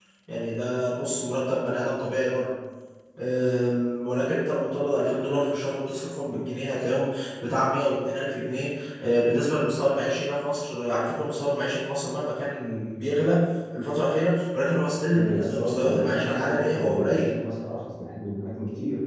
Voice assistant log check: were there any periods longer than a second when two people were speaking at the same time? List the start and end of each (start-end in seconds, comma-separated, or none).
15.1-17.4